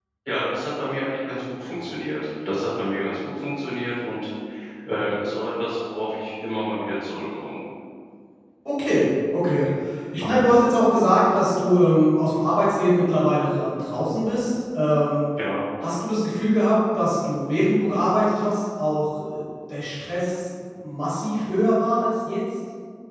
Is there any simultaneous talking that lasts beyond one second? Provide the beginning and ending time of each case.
none

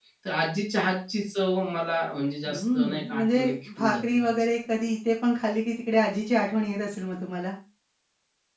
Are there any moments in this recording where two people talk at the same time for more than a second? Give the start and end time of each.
2.5-4.4

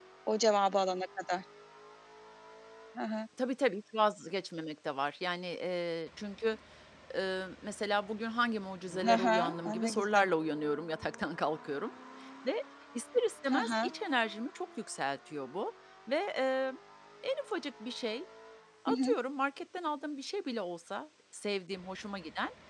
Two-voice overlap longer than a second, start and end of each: 9.1-10.3

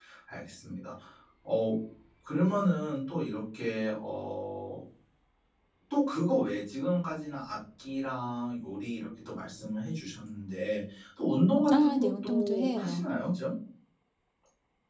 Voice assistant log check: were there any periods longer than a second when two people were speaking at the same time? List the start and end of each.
11.7-13.1

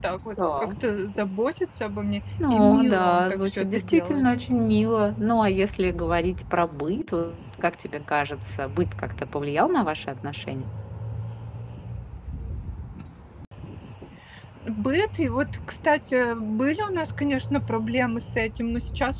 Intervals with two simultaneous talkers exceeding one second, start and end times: 2.5-4.2

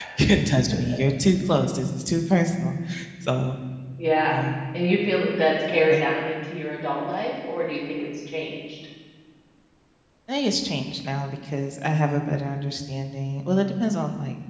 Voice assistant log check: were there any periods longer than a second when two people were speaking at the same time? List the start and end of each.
none

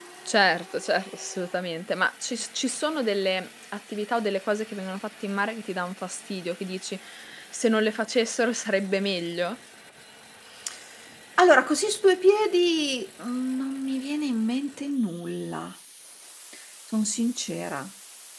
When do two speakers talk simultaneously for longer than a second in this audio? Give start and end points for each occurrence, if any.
none

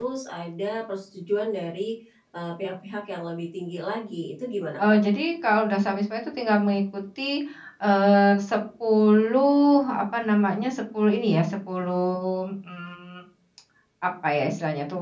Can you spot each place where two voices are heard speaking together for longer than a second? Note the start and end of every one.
none

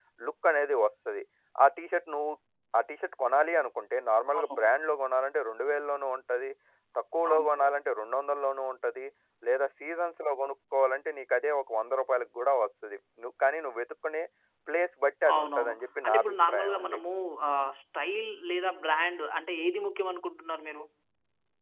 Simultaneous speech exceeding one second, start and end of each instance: 15.3-17.0

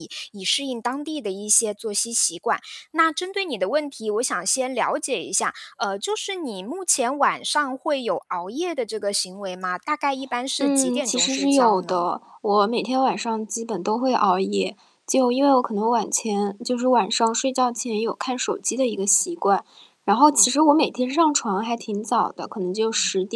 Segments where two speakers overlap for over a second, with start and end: 10.6-12.0

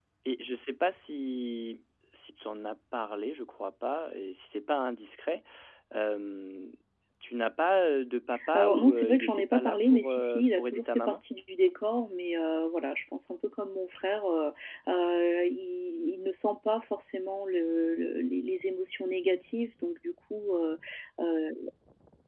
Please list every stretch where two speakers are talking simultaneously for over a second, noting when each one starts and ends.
8.6-11.2

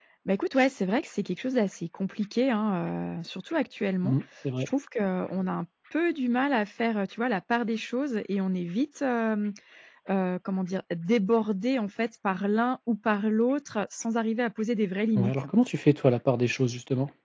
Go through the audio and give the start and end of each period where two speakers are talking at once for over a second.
none

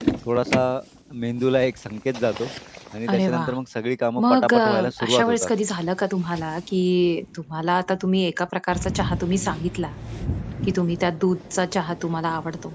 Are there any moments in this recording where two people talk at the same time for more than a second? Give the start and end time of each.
4.2-5.5

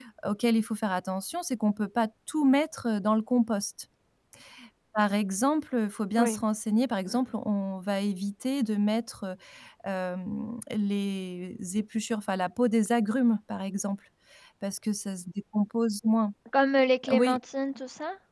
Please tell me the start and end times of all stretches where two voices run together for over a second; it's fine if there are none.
none

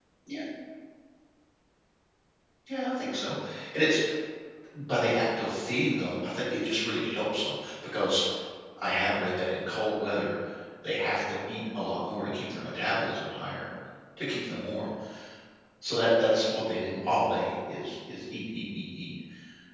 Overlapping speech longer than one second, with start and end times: none

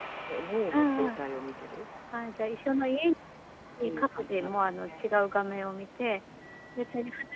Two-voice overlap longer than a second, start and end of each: 3.8-5.0

